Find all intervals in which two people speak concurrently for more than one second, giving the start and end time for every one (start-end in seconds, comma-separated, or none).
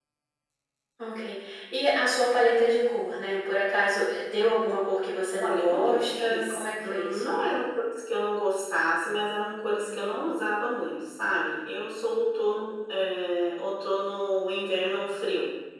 5.4-7.4